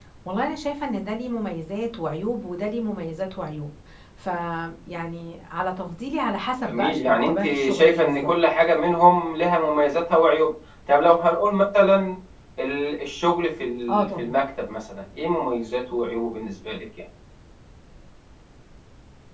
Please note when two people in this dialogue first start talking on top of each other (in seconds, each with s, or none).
6.6 s